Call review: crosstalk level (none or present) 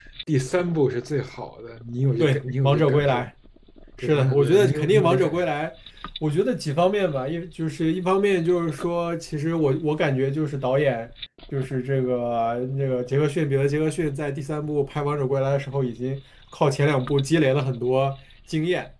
present